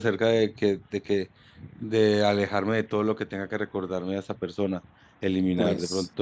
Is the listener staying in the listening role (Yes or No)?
Yes